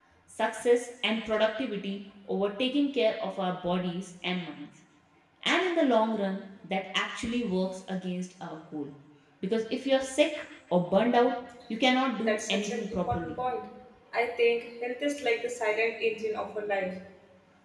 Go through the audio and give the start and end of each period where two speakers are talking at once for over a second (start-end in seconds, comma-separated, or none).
12.2-13.4